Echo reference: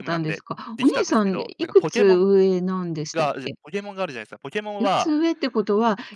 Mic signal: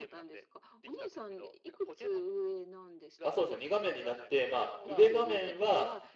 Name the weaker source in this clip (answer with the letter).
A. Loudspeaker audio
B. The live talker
A